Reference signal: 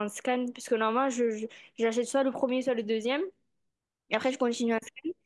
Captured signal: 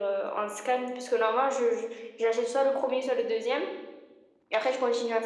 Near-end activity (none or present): none